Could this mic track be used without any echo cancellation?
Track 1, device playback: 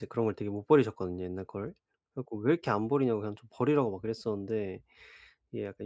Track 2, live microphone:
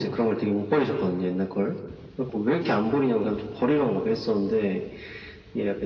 No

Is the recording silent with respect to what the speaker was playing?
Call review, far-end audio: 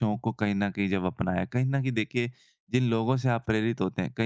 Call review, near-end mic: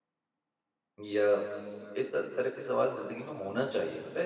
Yes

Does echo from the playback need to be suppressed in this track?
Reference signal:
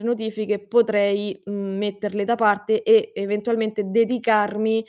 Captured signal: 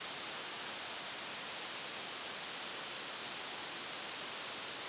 No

